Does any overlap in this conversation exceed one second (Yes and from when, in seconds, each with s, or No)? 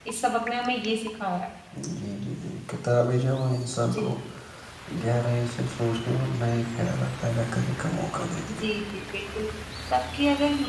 No